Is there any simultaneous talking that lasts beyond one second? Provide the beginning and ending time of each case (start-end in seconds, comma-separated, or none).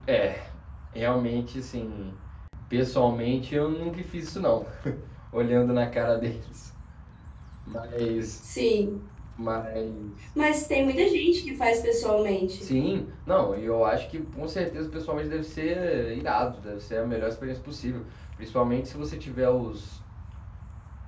none